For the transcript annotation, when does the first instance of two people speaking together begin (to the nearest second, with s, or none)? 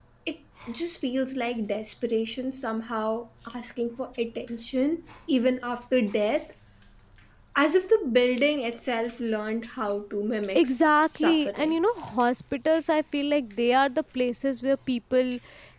11 s